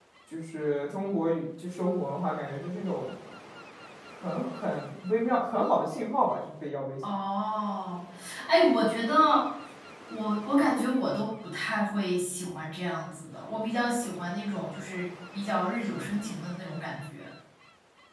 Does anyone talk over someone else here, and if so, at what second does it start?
none

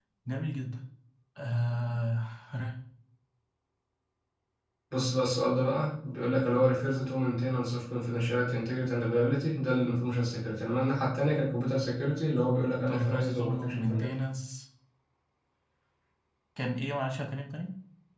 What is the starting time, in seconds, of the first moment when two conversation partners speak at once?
12.9 s

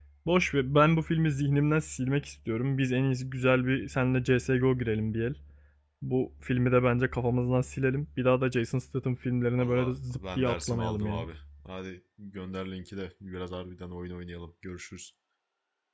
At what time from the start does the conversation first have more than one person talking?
9.6 s

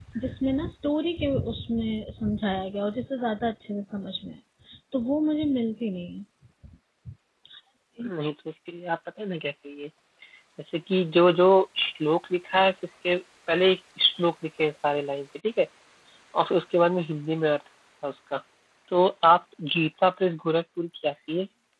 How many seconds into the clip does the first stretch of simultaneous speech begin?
none

